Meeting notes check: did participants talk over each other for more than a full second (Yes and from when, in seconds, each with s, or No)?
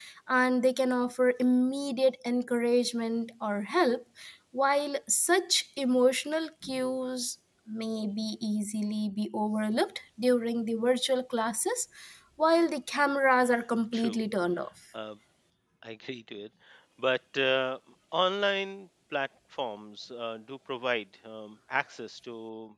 No